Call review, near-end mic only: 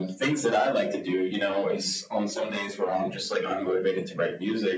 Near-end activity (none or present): none